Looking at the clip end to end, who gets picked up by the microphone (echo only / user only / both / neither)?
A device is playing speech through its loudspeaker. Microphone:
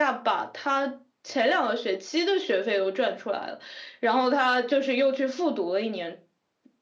echo only